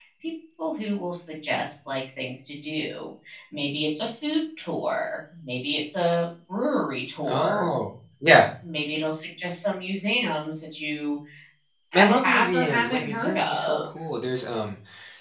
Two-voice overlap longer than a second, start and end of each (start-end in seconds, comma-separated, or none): 11.9-13.8